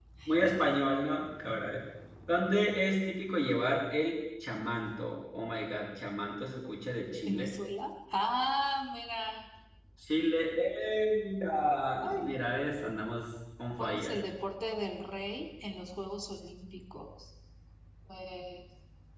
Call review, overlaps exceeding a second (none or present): none